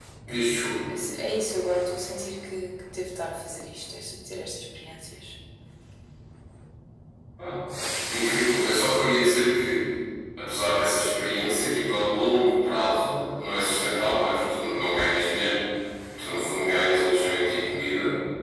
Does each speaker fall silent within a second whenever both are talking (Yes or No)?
Yes